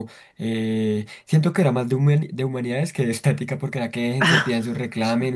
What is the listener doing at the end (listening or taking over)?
listening